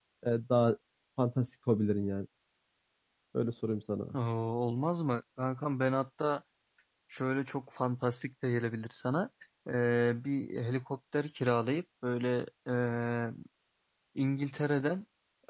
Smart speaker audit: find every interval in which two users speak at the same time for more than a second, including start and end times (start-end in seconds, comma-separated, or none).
none